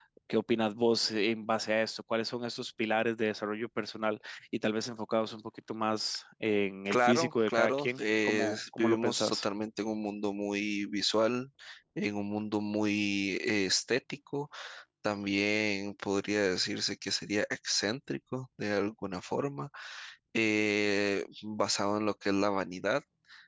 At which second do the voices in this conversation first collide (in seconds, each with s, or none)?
6.9 s